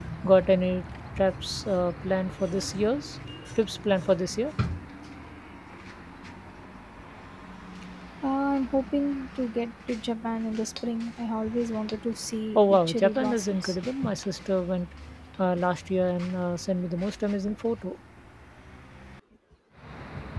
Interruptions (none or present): present